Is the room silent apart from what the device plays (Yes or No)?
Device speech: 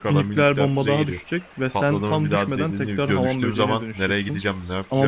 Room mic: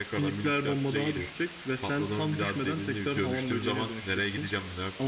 Yes